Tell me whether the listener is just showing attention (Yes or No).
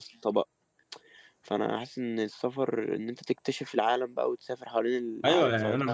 No